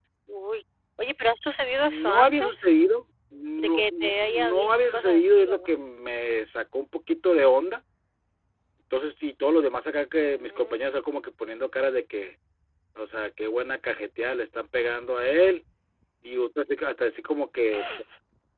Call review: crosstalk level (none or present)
present